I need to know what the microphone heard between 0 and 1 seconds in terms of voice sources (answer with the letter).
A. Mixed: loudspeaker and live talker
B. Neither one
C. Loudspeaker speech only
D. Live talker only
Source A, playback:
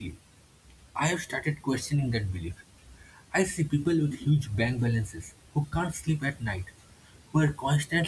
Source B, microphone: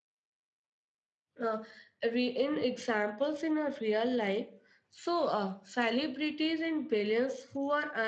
B